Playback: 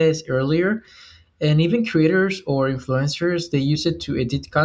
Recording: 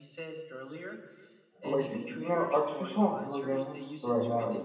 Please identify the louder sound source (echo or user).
user